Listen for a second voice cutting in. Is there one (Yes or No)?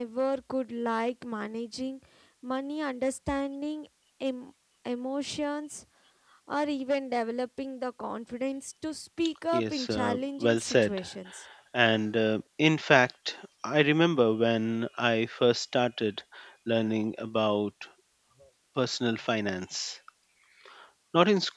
Yes